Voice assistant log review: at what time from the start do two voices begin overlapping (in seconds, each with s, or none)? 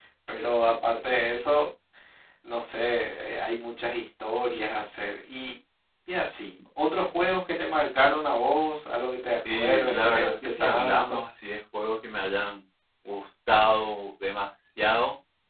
9.4 s